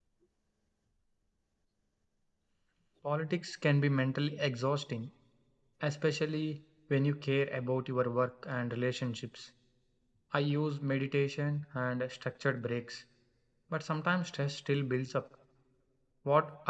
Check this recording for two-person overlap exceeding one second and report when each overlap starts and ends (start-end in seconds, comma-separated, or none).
none